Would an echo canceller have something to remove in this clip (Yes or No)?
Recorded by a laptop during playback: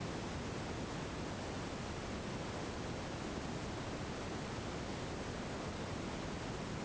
No